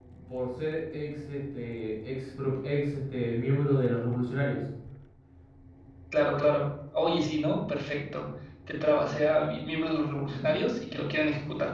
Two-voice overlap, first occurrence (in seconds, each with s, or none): none